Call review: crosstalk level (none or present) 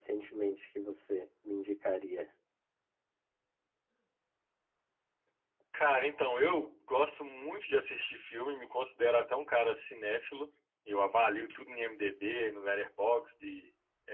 none